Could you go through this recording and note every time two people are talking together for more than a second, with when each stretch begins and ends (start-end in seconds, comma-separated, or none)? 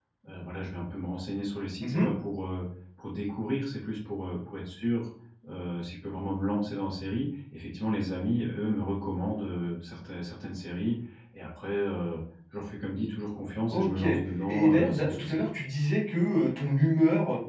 13.7-15.4